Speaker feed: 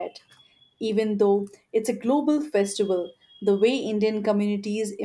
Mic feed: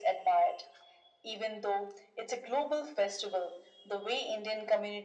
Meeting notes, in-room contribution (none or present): none